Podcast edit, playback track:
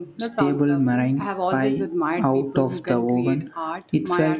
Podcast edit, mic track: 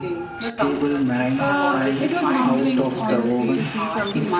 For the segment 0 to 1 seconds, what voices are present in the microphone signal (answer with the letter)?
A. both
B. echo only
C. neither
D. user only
B